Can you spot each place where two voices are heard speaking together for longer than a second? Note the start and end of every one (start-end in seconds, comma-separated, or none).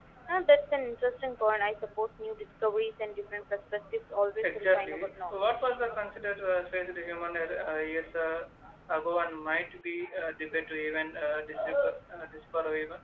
4.4-5.8